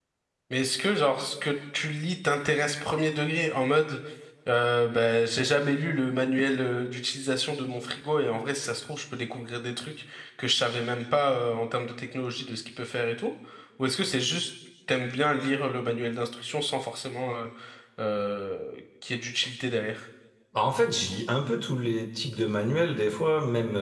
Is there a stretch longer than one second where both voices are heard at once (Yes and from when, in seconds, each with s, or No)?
No